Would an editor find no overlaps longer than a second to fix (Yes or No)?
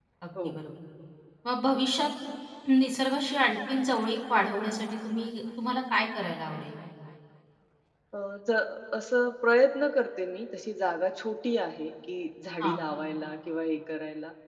Yes